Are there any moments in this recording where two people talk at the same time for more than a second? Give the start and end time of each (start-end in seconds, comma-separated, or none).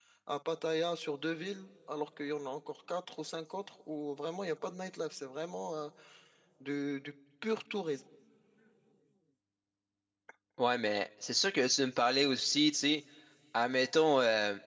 none